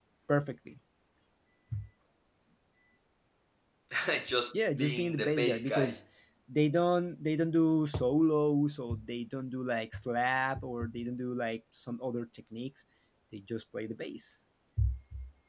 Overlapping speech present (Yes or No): Yes